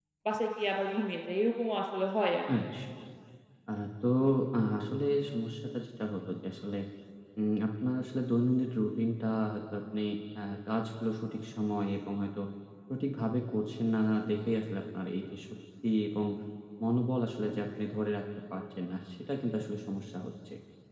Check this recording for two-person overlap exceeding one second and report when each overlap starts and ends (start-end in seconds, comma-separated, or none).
none